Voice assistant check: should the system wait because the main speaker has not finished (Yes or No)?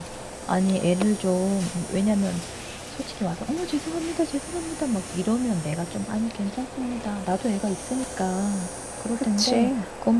Yes